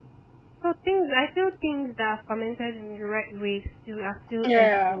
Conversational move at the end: listening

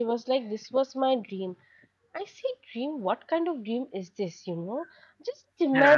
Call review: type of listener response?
listening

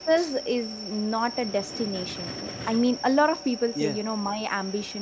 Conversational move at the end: listening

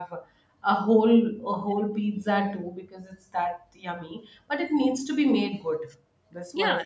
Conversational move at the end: taking over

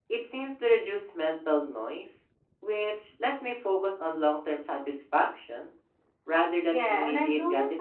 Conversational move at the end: taking over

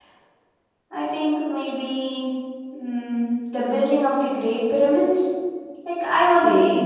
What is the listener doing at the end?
taking over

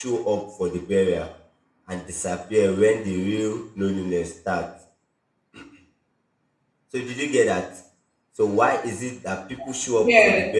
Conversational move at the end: listening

